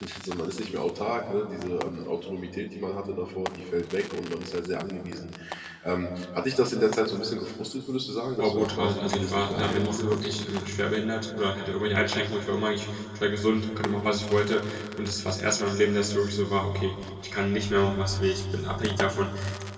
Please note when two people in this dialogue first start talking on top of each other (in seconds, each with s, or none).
8.4 s